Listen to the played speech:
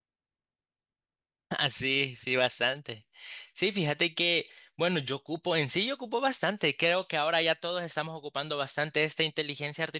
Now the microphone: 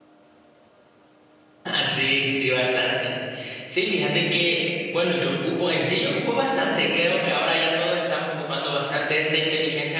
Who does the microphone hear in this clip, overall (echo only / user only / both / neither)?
echo only